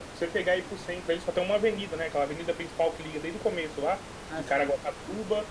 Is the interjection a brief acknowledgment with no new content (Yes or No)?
Yes